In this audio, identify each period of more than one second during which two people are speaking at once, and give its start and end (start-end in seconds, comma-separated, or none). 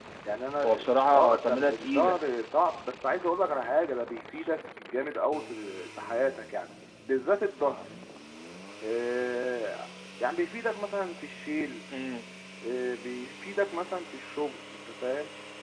0.6-2.2